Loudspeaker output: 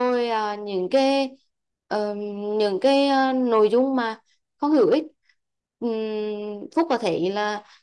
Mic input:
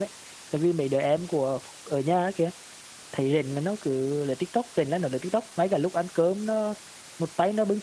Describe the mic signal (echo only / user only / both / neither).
user only